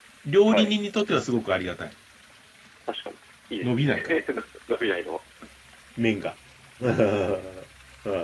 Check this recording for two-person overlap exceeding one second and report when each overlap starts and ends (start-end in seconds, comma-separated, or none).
none